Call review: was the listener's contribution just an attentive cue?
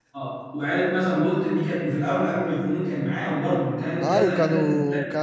No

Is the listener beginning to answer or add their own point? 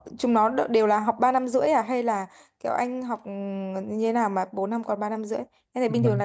Yes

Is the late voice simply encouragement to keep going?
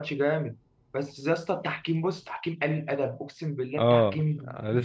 No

